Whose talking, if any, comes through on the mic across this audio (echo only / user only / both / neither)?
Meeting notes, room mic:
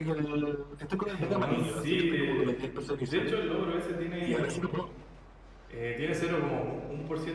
both